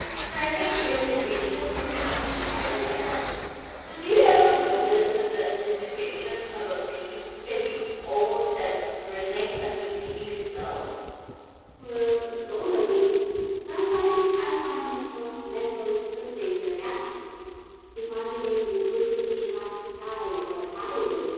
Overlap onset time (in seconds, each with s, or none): none